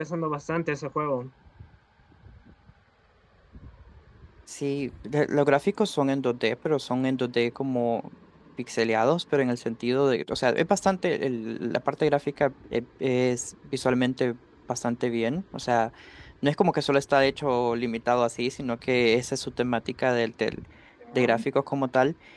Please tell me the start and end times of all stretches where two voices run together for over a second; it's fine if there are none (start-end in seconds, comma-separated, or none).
none